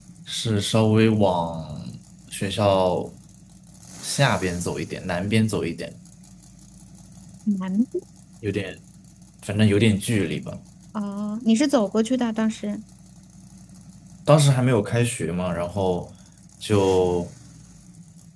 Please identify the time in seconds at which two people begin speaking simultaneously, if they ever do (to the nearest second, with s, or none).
none